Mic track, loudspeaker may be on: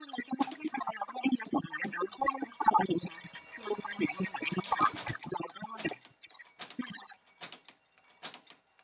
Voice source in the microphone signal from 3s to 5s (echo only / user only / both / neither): echo only